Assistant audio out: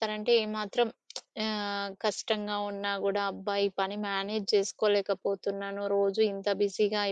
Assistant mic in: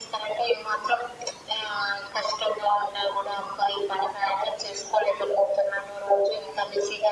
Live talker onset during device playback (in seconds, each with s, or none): none